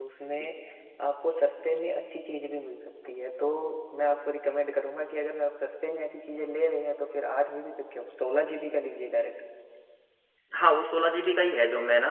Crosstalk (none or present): none